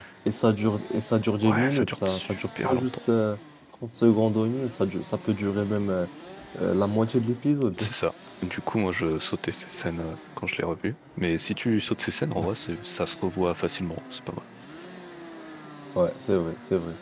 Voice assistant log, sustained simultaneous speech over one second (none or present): present